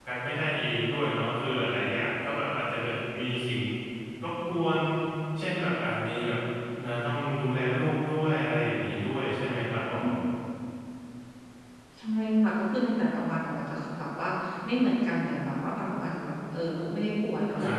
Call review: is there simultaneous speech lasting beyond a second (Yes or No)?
No